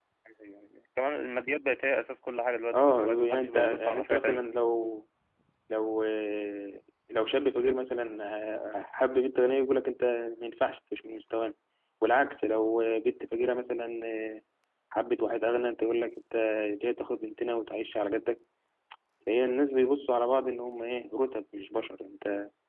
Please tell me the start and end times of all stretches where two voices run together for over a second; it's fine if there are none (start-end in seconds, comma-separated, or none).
2.7-4.5